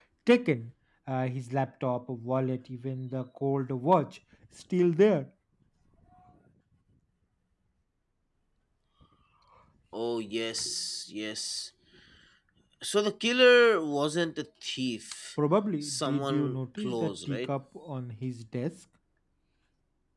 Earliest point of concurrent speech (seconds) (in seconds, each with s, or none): 15.8 s